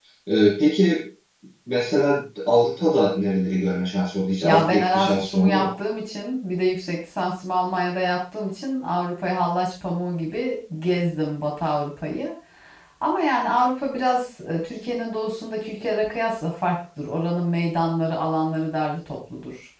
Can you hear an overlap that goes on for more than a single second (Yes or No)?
Yes